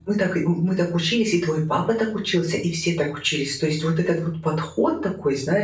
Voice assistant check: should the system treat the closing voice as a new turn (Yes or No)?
No